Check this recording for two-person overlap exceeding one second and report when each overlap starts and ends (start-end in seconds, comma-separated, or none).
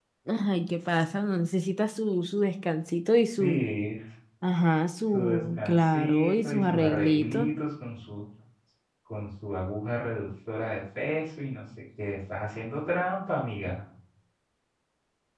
5.1-7.5